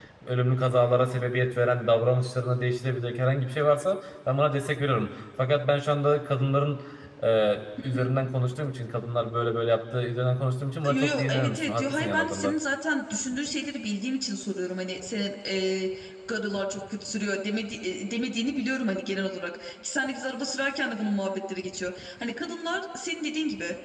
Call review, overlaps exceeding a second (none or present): present